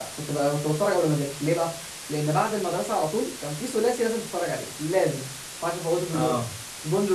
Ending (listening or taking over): listening